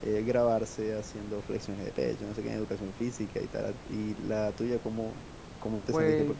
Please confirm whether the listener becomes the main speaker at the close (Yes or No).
No